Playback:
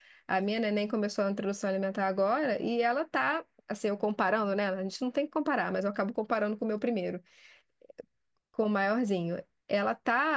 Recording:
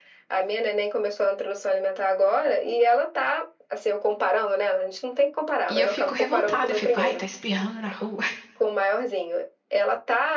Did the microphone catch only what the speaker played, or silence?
No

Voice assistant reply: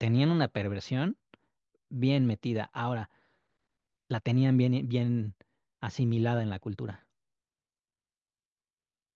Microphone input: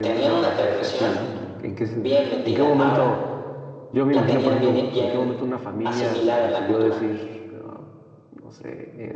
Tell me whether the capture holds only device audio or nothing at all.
No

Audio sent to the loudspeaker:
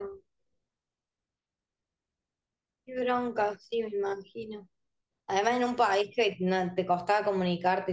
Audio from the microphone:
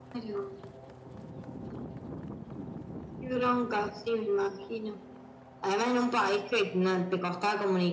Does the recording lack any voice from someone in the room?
Yes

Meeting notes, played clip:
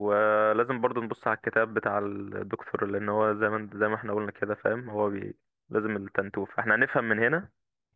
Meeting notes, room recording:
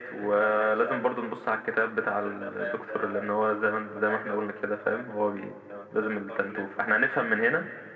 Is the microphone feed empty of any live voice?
No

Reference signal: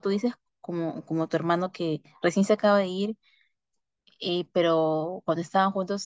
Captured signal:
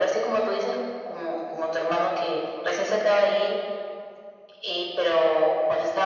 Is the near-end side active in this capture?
No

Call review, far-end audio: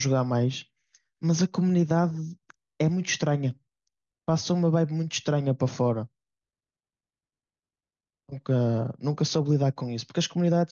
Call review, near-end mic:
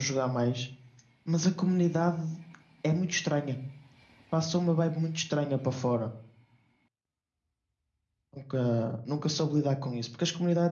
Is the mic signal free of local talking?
Yes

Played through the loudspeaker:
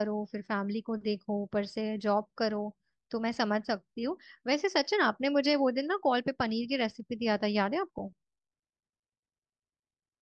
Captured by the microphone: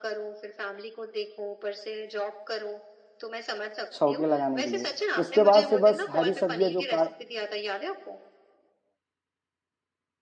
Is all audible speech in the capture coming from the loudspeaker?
No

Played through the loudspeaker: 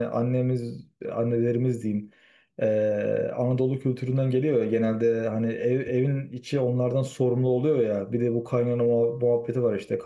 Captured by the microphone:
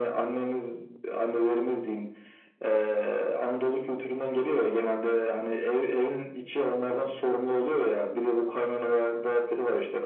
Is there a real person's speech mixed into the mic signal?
No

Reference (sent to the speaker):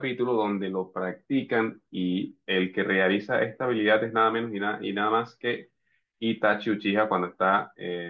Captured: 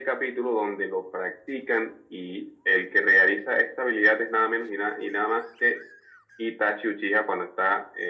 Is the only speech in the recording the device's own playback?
Yes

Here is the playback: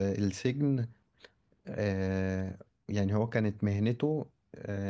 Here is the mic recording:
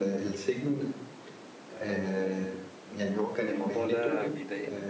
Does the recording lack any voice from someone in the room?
No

